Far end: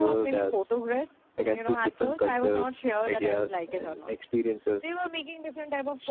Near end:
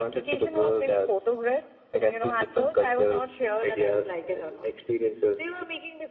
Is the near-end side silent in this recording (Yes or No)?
Yes